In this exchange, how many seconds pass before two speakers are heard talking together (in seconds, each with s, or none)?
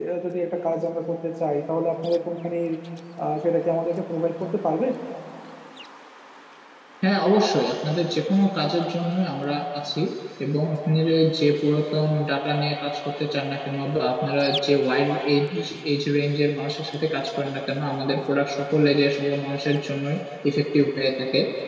none